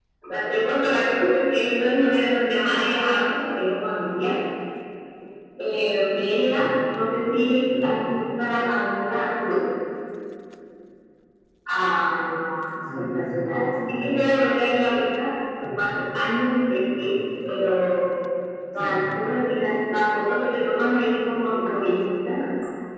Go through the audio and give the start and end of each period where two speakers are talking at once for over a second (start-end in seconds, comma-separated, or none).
13.0-14.3